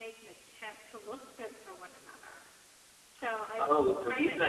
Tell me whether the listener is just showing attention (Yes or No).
No